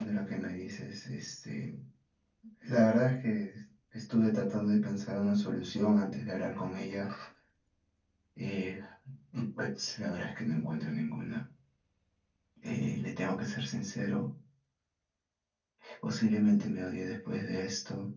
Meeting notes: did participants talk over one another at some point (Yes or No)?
No